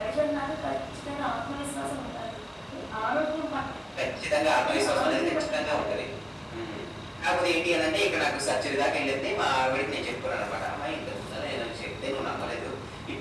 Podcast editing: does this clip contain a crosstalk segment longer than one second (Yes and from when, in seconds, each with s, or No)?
Yes, from 4.6 s